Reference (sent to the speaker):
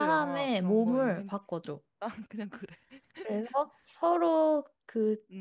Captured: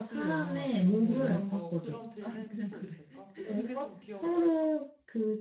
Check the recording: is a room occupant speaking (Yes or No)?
Yes